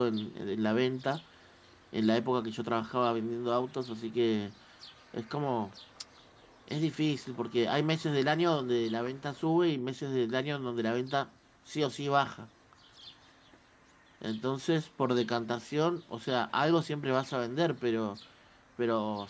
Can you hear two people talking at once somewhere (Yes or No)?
No